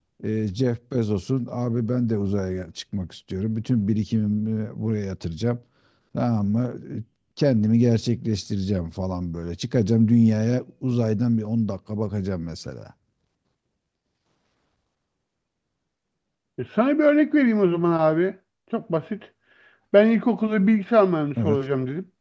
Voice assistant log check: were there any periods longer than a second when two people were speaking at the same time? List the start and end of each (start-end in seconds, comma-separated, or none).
none